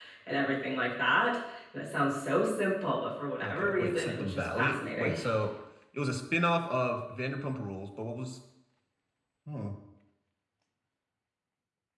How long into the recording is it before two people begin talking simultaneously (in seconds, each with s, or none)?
3.4 s